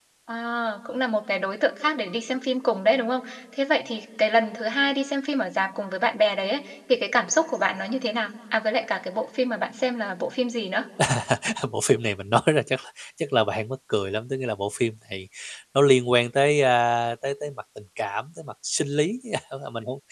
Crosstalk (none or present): none